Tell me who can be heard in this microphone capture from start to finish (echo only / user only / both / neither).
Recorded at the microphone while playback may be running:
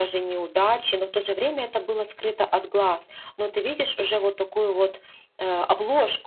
user only